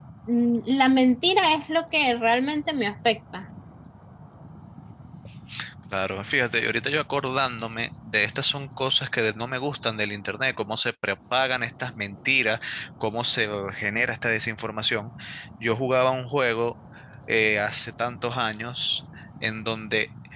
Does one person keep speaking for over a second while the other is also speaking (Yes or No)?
No